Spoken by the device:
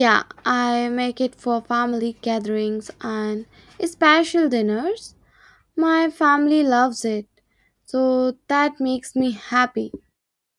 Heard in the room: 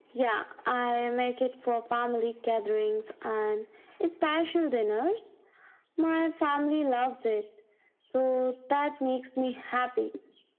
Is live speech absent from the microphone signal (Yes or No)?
Yes